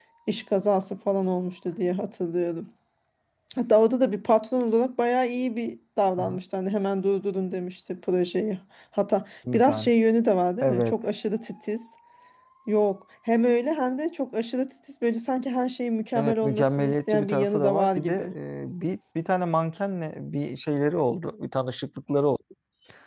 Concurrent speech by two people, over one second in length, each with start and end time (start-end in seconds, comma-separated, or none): 16.1-18.1